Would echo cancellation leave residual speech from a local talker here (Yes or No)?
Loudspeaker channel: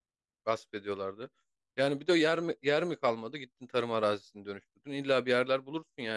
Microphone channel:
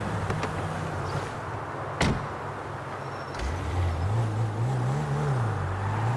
No